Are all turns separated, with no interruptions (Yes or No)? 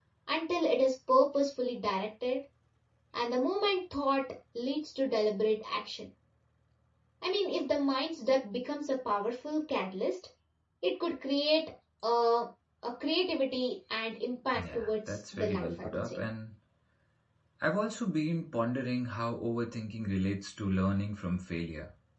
No